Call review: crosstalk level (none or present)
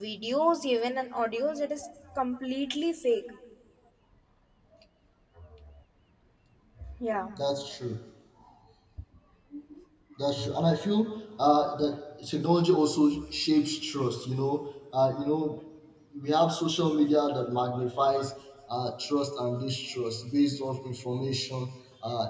none